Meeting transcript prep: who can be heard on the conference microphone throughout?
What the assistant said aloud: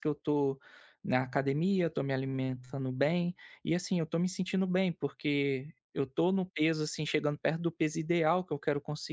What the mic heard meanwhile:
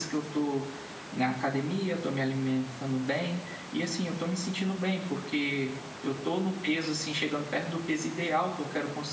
echo only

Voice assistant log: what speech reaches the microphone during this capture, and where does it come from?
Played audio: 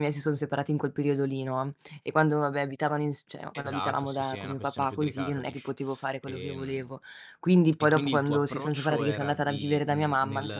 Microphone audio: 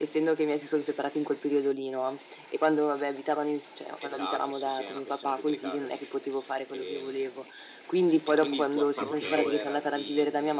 both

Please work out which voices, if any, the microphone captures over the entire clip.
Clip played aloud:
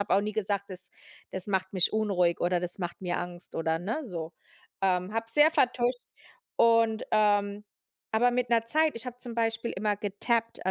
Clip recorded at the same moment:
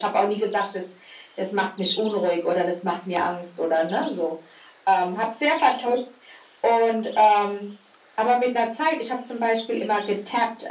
echo only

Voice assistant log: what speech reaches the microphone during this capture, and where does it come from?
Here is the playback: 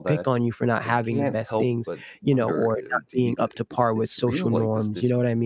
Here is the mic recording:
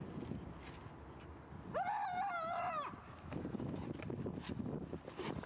neither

